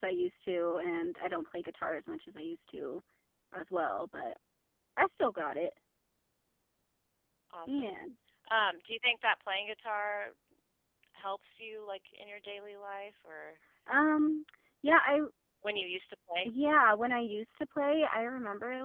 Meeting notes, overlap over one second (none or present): none